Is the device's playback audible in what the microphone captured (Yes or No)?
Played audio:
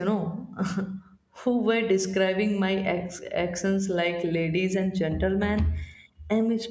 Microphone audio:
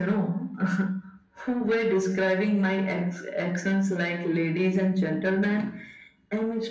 Yes